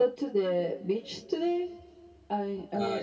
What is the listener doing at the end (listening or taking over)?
taking over